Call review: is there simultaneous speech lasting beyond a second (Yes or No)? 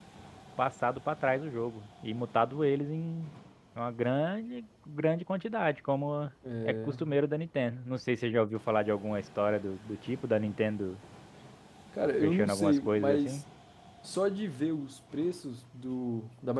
Yes